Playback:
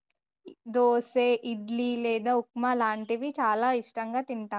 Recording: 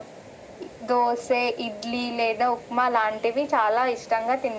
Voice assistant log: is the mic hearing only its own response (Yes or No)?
Yes